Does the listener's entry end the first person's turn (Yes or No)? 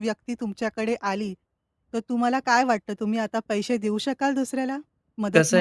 Yes